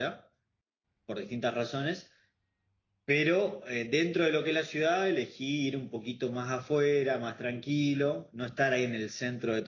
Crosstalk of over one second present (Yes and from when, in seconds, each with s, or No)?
No